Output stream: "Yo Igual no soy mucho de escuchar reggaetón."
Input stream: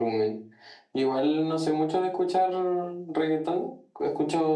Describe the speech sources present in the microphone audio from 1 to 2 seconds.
echo only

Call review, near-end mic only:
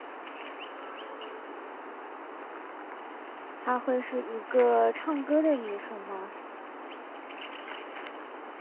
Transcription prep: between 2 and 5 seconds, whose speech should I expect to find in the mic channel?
user only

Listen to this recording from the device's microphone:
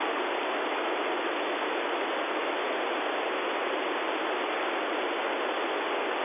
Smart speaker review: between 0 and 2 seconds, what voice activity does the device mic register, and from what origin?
neither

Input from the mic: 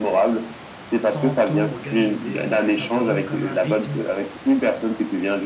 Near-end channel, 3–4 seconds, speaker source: both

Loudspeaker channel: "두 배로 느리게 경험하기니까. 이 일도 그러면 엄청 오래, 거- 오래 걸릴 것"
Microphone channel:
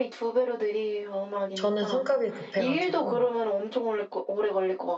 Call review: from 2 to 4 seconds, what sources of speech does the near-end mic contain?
both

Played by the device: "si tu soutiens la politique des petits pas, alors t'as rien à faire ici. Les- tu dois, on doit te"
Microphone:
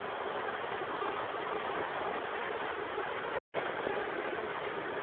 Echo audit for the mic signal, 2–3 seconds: neither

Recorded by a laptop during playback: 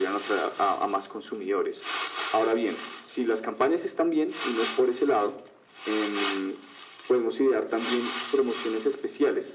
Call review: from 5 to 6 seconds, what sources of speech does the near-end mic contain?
echo only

